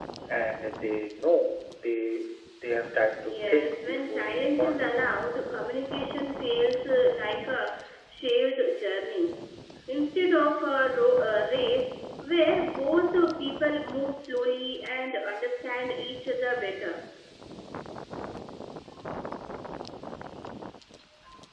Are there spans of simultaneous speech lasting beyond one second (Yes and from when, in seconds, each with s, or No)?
Yes, from 3.2 s